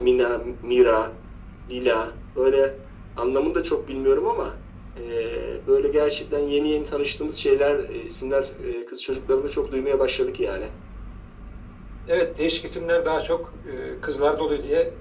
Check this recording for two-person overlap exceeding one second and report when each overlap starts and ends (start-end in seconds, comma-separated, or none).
none